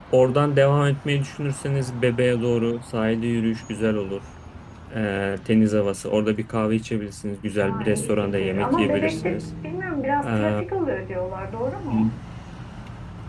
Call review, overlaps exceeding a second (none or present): present